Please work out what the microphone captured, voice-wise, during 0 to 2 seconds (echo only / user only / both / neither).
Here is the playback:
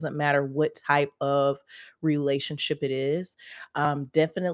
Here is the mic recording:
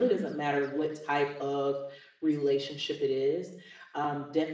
echo only